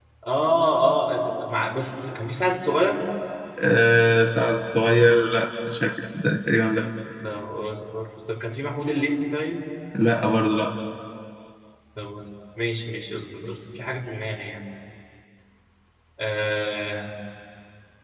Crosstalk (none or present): none